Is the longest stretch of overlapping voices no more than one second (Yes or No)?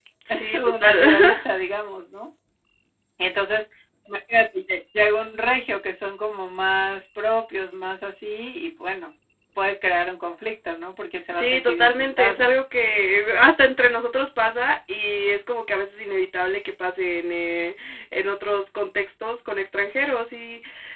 No